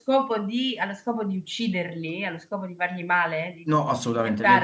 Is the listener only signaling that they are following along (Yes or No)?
No